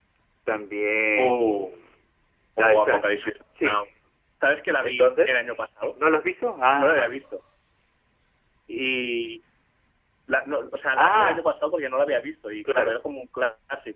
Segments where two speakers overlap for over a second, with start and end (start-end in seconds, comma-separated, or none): none